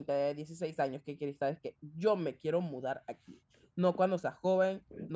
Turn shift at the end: No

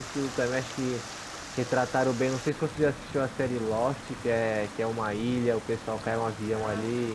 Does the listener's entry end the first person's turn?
Yes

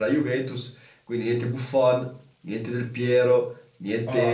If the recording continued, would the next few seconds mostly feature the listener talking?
No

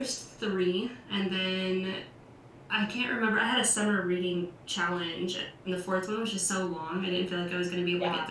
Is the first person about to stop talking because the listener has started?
Yes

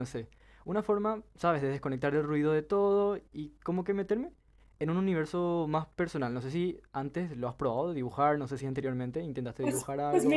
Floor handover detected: Yes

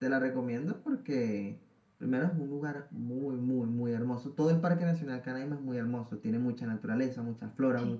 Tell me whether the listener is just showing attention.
Yes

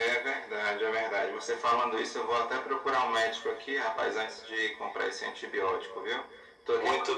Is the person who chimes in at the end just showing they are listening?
Yes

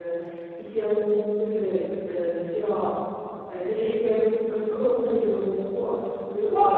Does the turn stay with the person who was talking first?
No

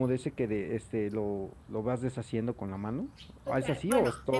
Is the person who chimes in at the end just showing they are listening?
No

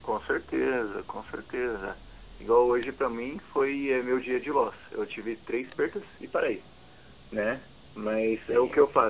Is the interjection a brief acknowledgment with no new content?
Yes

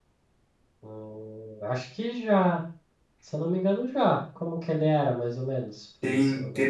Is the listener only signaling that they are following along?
No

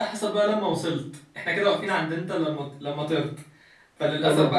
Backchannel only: Yes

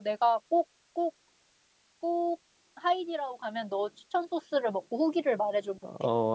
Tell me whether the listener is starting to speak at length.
Yes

